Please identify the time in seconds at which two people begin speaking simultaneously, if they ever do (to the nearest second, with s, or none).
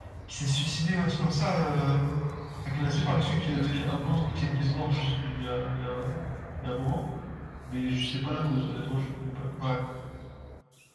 3 s